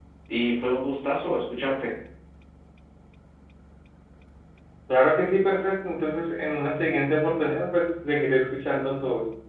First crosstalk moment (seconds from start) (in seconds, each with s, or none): none